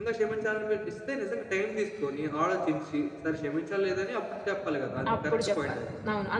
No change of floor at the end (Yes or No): No